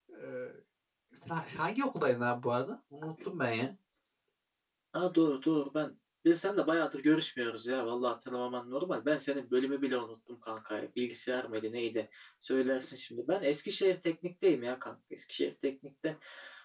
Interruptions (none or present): none